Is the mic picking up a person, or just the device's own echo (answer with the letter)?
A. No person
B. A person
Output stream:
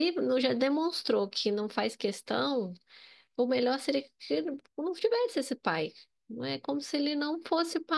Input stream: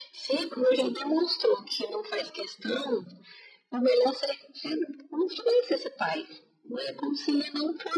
A